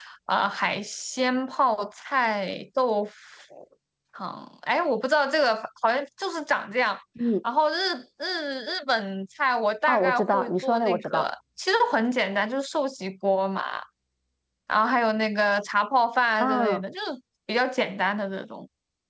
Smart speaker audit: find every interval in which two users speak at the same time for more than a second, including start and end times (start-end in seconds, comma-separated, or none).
9.9-11.3